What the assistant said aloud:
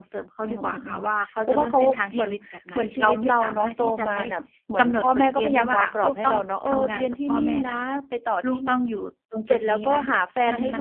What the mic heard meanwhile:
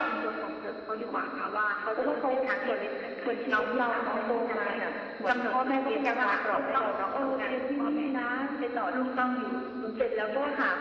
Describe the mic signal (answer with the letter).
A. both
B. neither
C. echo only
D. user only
C